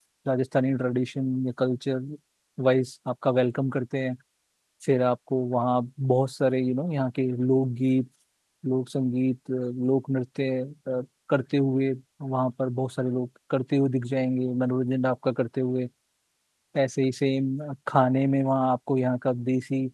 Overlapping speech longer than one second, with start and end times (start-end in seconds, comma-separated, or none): none